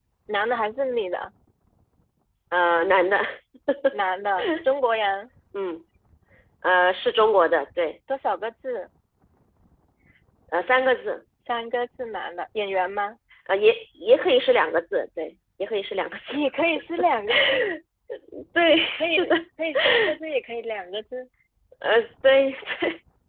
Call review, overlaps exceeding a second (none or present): none